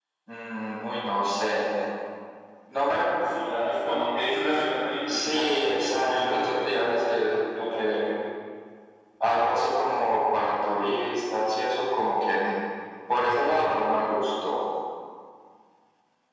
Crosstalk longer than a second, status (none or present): present